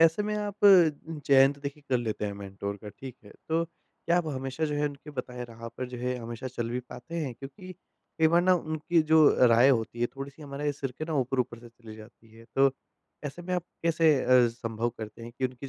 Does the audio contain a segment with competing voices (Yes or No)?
No